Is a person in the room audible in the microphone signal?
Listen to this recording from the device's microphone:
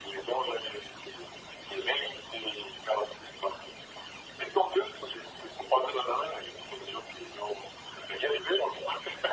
No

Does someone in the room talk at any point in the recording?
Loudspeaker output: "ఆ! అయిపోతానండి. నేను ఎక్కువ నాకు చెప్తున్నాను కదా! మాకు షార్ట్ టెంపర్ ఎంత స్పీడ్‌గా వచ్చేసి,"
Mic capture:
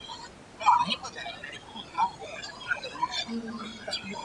Yes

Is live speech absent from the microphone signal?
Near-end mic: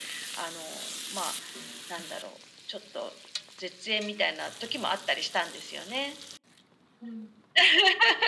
Yes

